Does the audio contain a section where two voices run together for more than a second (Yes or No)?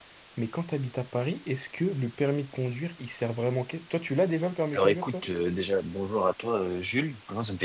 No